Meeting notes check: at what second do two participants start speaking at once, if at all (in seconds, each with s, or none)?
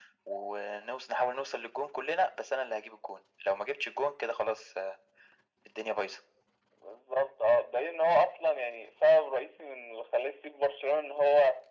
none